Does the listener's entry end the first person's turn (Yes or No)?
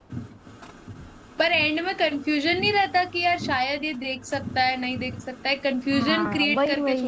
Yes